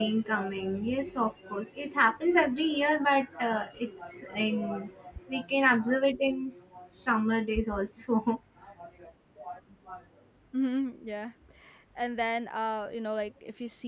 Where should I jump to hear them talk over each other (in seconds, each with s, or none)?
none